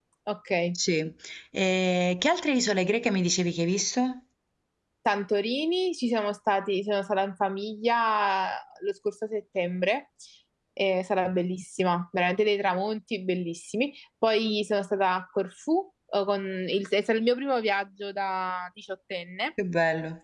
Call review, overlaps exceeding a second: none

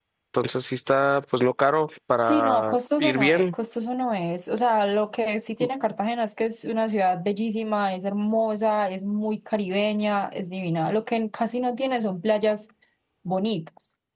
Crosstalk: present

